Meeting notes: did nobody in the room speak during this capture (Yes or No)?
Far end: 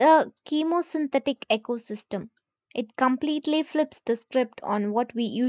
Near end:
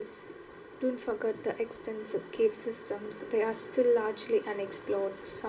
No